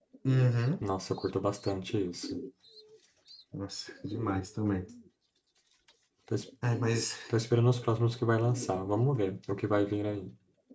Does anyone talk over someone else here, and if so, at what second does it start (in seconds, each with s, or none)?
none